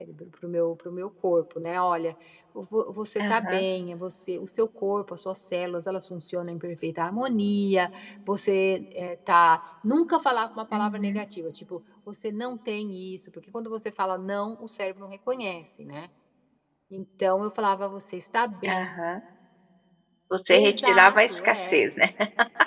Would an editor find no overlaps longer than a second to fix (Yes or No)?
No